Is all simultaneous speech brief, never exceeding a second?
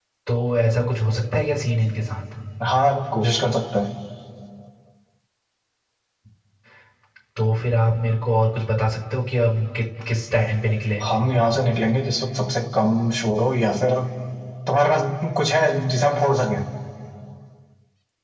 Yes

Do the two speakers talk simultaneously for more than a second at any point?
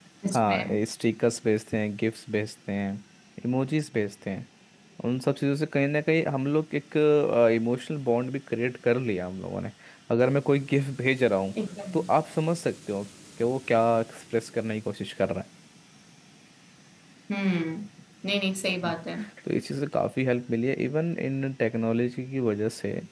No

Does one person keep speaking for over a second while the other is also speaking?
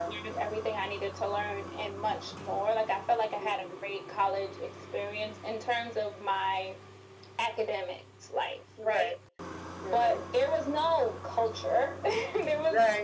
No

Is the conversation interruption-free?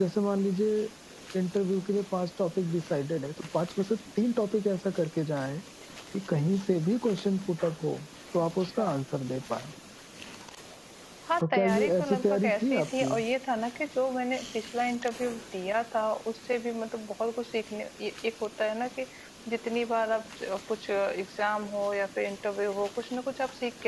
No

